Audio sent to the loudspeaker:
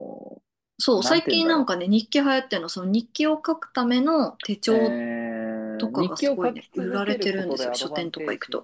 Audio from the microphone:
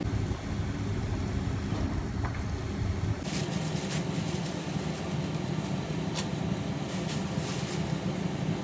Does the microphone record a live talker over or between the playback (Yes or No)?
No